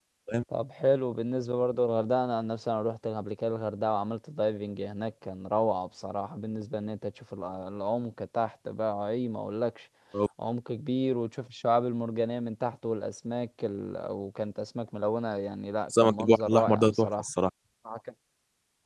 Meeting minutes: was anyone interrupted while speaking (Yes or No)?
Yes